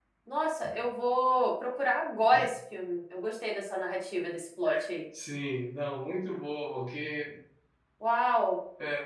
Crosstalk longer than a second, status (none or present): none